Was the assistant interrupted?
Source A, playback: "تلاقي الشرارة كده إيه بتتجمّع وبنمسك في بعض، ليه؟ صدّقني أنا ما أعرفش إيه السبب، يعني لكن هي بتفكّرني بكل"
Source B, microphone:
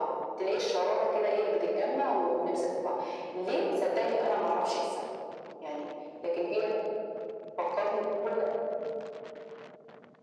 No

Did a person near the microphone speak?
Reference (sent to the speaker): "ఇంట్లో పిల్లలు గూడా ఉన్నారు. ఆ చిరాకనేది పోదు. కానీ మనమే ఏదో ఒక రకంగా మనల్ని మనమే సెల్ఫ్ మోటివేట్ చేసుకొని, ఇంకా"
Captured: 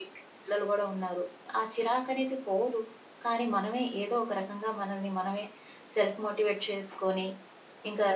No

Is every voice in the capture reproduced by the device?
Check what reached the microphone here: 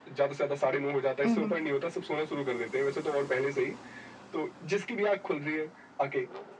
No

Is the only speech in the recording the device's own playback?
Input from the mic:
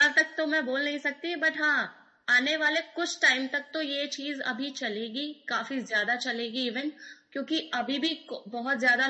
Yes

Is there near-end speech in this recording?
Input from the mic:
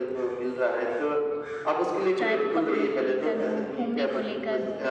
Yes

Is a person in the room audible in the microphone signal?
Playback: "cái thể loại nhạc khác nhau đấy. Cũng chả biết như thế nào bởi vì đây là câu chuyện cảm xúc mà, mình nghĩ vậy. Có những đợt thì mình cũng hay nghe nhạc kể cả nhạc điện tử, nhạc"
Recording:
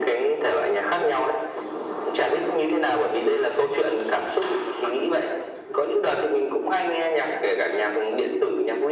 No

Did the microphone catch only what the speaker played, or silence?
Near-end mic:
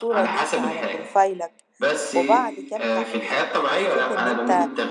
No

